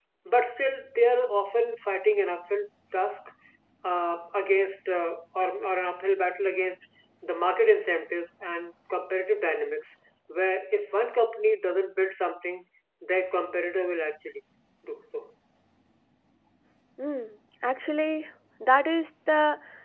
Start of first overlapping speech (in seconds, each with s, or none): none